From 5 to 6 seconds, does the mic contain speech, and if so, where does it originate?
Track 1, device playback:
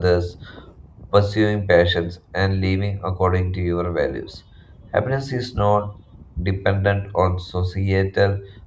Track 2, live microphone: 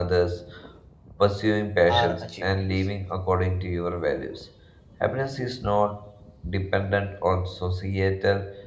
echo only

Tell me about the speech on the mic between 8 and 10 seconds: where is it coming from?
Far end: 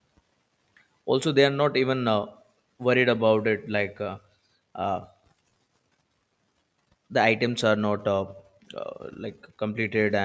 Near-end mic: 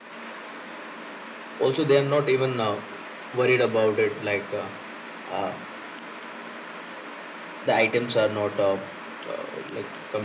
echo only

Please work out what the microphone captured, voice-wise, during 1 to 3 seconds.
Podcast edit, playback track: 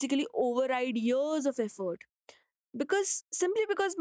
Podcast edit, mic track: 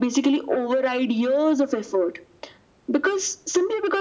echo only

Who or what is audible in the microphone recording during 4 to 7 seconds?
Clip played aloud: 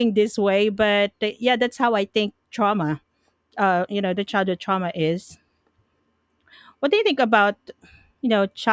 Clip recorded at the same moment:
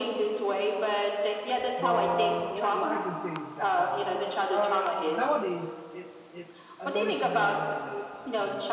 both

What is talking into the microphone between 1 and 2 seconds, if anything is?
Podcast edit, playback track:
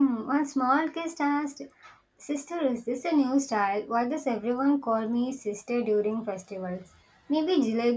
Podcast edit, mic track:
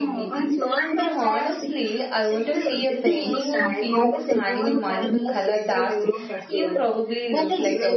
both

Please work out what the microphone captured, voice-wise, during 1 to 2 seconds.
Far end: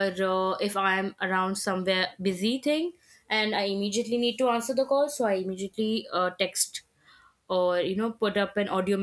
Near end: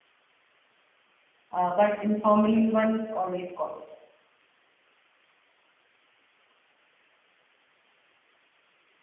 user only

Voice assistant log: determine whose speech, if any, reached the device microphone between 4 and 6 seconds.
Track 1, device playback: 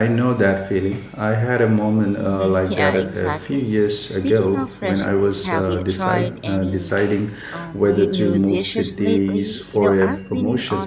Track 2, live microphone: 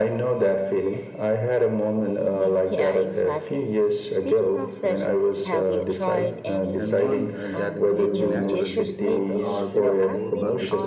echo only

